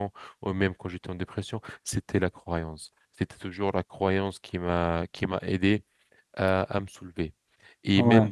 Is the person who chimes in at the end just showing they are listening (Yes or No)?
Yes